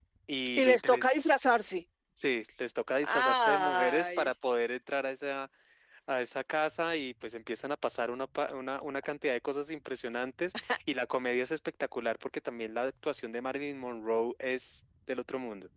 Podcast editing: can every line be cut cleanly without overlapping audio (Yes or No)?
No